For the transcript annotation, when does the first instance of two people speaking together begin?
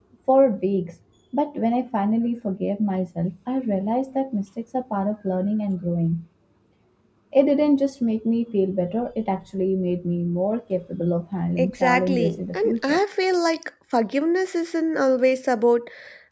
11.6 s

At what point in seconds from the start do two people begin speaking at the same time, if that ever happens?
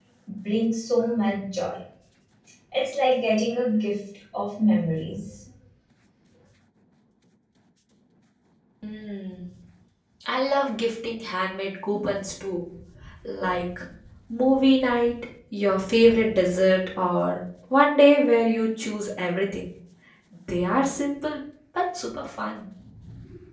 none

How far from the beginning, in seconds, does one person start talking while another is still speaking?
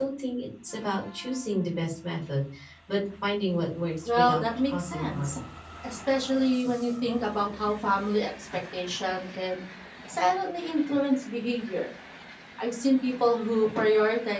4.0 s

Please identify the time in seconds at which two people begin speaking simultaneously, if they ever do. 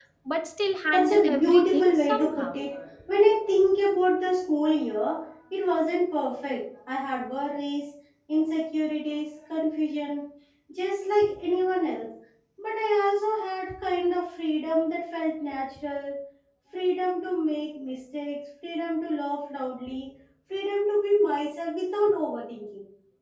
0.9 s

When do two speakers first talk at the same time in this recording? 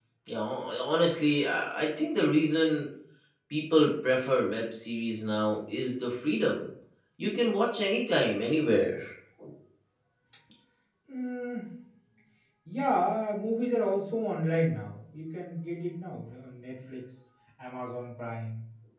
none

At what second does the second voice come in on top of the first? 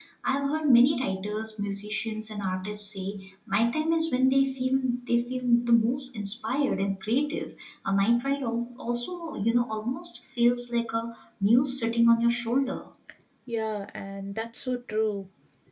none

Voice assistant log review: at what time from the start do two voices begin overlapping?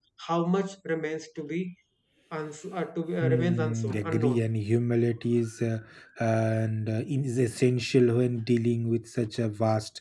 3.2 s

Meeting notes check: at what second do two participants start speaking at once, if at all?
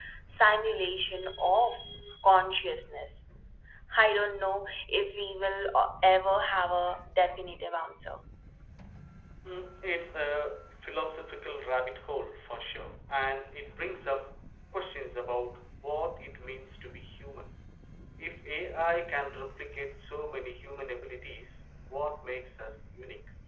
none

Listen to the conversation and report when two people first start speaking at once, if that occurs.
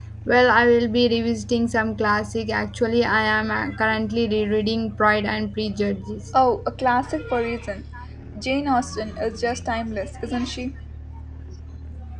none

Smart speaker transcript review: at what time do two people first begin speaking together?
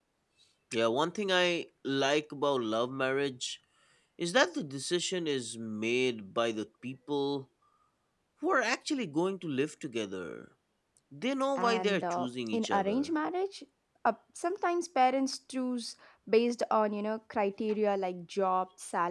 11.6 s

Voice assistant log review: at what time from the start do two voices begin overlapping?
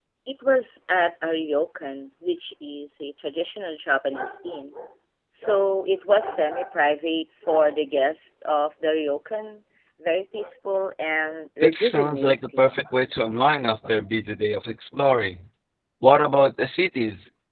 11.6 s

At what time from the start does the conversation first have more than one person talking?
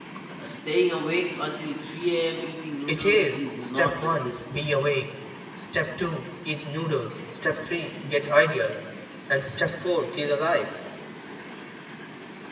2.9 s

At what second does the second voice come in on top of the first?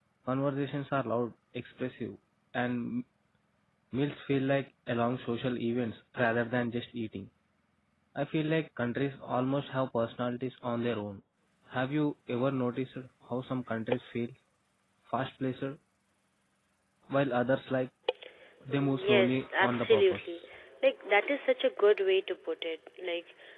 18.7 s

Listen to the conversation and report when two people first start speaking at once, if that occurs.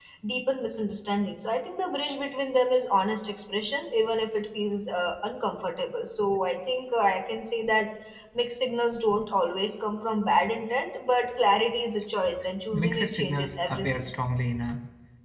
12.7 s

